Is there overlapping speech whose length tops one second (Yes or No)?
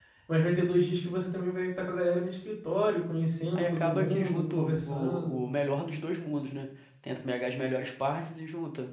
Yes